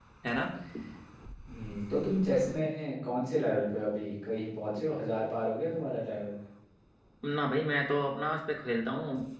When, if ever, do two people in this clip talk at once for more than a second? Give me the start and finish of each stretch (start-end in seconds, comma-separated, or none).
none